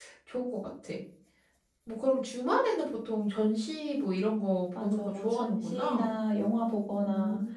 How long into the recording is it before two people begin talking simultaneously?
5 s

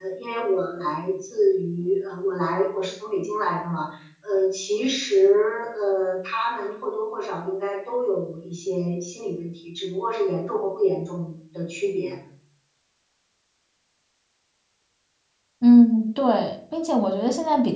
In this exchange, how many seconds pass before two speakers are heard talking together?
none

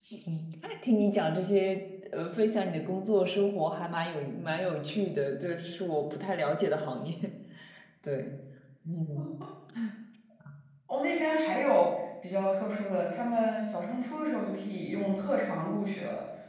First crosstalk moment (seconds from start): none

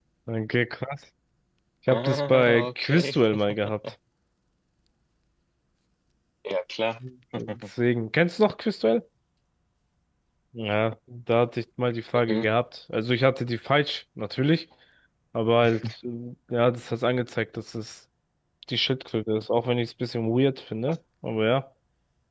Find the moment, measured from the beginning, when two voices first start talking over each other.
2 s

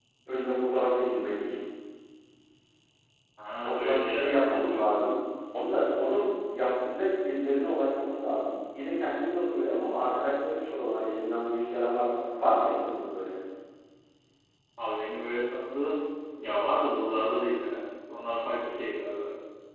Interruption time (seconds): 4 s

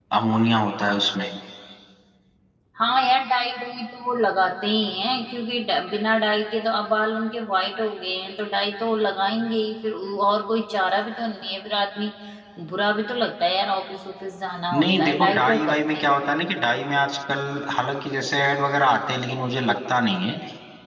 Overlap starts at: 15 s

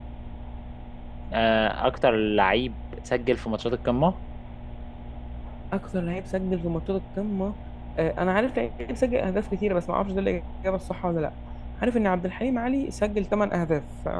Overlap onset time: none

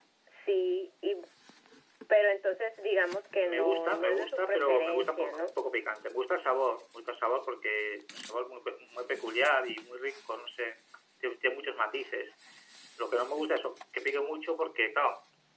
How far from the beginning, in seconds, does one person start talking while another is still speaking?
3 s

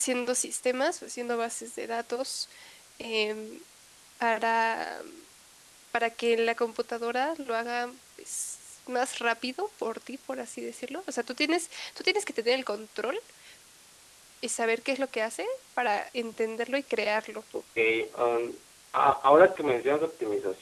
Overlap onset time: none

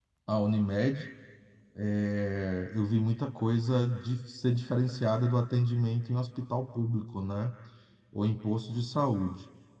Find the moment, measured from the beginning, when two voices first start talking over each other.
none

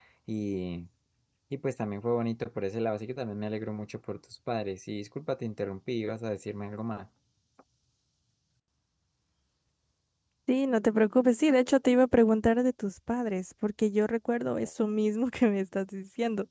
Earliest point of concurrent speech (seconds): none

